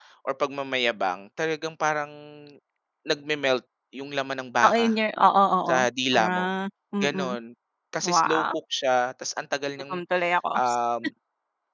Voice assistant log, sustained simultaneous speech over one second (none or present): none